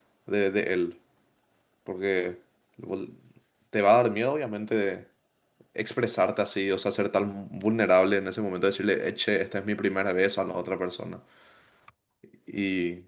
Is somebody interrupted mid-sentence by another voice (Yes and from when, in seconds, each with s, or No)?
No